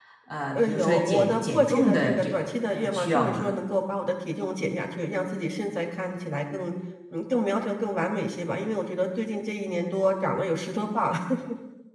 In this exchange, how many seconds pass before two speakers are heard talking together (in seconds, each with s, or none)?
0.6 s